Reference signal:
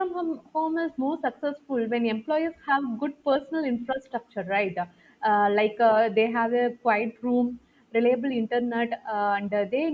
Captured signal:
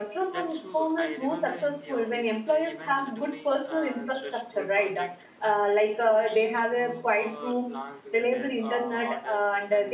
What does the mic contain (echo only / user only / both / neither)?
both